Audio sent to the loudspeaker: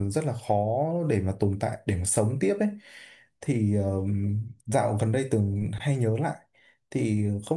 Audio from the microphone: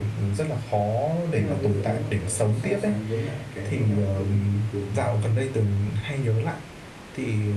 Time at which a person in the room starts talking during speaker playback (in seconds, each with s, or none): 1.4 s